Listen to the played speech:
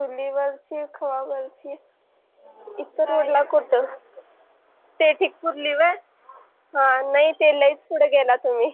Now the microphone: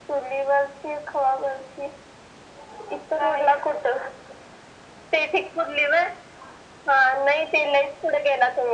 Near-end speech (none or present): none